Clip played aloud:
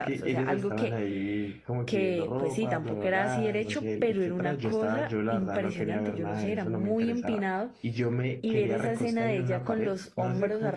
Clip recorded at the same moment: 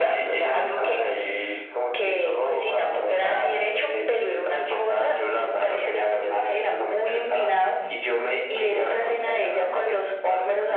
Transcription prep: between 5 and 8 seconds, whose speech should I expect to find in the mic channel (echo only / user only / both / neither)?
echo only